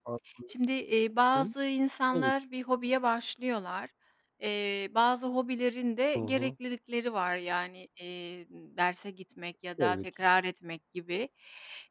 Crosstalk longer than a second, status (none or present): none